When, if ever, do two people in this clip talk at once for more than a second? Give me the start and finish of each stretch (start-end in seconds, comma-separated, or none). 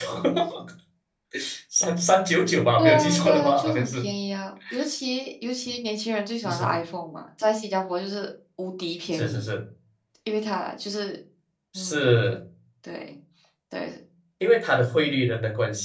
2.8-4.1